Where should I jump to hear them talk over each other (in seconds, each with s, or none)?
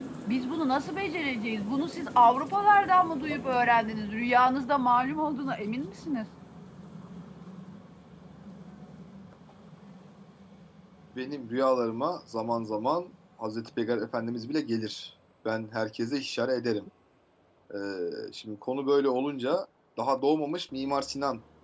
none